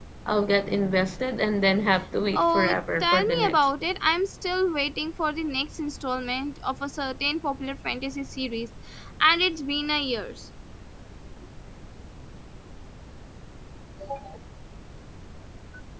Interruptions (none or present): present